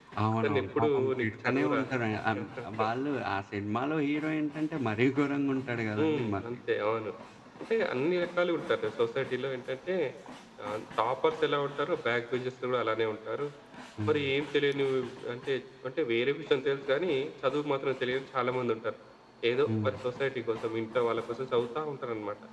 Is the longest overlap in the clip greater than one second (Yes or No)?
Yes